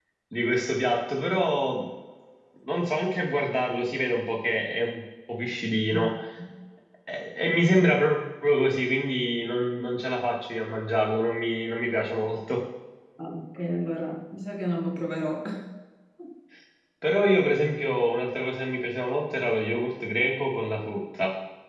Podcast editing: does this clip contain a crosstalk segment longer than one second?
No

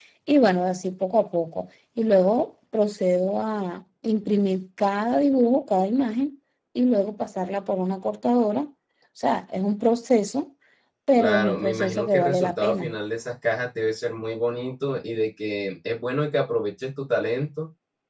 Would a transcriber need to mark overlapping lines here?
Yes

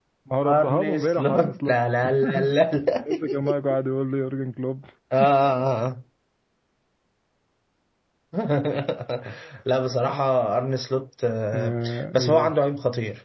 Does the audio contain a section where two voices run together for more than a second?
Yes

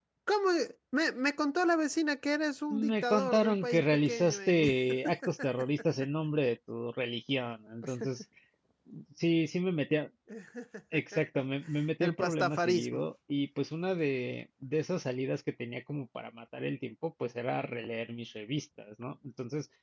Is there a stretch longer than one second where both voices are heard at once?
Yes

